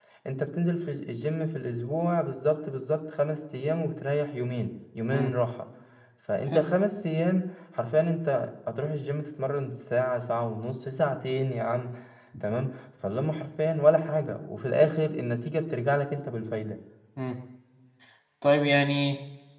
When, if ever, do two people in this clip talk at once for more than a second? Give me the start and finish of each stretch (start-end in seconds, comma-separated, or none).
none